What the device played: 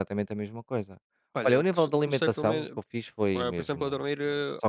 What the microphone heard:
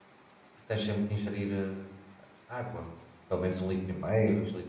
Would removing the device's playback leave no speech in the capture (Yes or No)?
No